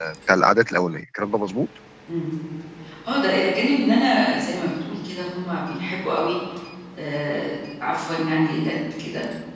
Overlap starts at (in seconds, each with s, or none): none